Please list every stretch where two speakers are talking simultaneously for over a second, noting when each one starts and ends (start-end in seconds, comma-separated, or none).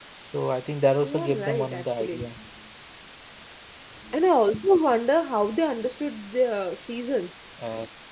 1.0-2.3